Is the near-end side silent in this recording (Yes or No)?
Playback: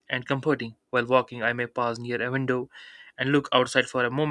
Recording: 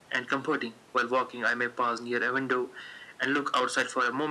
Yes